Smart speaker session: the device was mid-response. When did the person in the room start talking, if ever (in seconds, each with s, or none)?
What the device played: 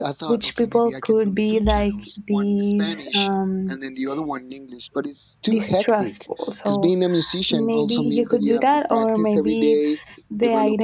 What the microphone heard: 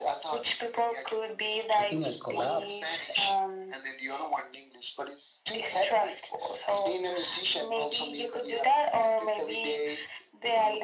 1.8 s